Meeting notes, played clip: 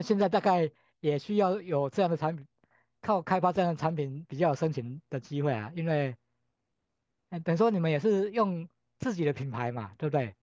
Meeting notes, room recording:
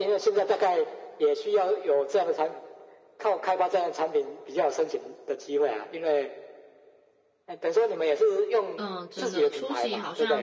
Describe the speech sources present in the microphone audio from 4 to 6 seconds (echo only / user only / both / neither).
echo only